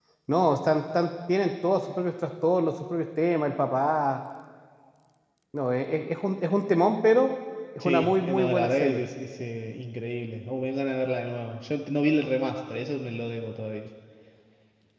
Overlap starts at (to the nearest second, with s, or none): 8 s